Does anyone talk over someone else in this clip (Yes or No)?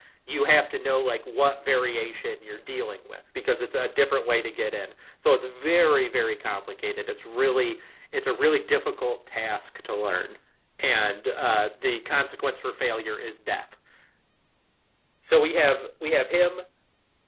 No